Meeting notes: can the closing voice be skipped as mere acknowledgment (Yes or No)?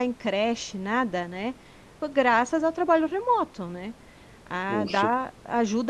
Yes